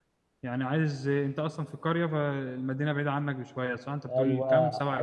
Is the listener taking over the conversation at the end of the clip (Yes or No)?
Yes